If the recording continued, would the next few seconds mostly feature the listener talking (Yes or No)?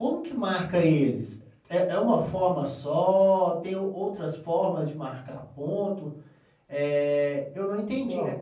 No